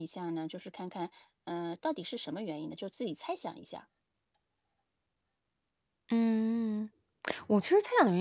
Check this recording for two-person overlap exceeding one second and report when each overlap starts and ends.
none

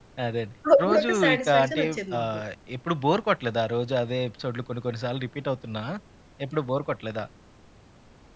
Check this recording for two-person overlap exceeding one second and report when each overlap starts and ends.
0.8-2.4

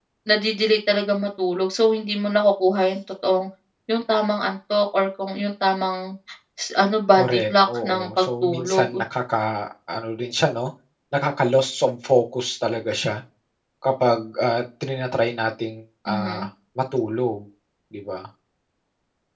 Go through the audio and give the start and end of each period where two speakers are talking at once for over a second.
7.1-9.0

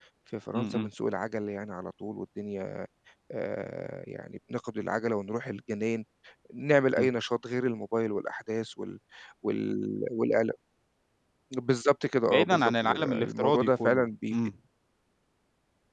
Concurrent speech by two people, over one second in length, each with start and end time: 12.2-14.4

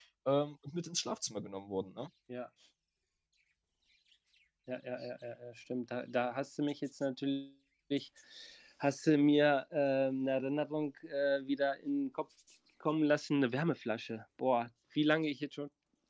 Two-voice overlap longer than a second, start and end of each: none

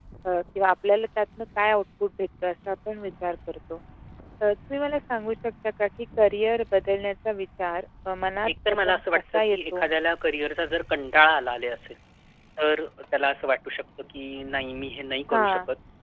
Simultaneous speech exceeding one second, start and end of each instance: 8.5-9.9

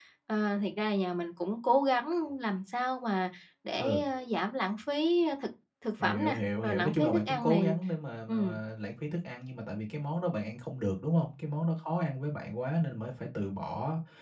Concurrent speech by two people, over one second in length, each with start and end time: 6.0-7.7

